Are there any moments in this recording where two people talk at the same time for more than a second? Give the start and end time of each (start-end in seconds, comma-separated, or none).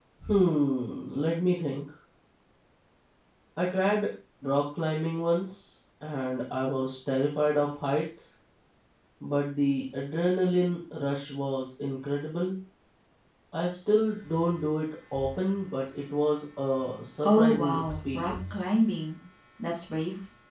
17.2-18.6